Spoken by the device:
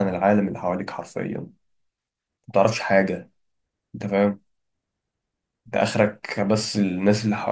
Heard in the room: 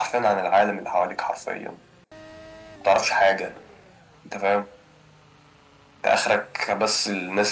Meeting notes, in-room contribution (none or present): none